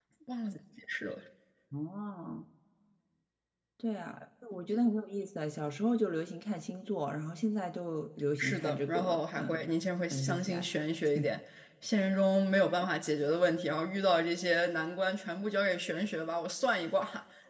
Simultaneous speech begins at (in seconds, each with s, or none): 8.4 s